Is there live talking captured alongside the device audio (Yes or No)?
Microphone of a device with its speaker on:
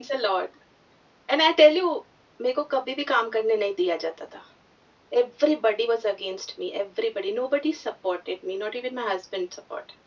No